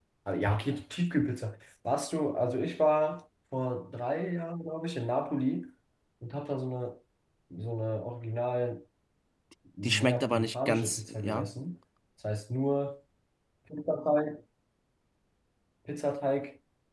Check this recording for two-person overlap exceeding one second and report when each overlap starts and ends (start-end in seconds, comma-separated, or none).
9.8-11.5